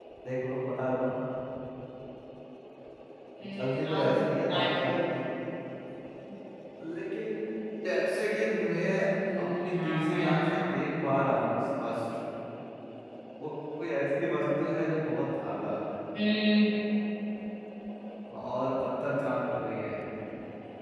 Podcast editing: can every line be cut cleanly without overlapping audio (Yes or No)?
No